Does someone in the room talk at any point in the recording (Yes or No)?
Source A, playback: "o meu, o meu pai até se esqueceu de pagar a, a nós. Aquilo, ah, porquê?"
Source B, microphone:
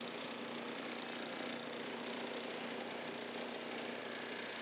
No